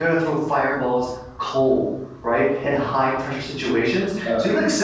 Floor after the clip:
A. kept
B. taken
A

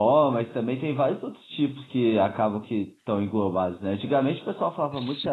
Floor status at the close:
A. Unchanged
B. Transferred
A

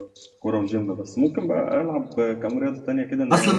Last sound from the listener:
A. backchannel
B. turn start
B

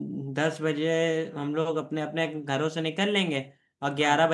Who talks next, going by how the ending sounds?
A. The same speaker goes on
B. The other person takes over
A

